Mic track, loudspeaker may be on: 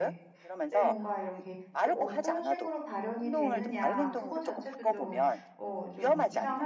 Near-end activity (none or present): present